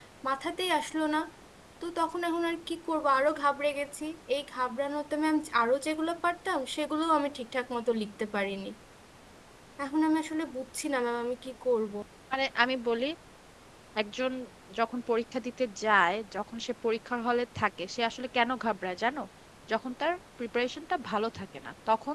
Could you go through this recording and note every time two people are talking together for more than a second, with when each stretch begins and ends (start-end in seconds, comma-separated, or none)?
none